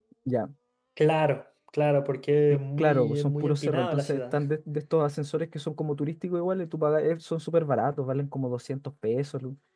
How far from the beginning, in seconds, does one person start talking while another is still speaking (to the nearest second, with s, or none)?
3 s